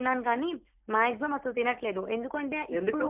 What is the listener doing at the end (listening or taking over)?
listening